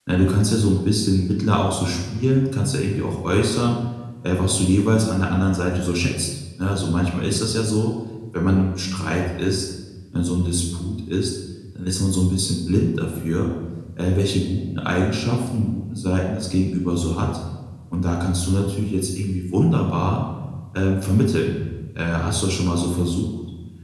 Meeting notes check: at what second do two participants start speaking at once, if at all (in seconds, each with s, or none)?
none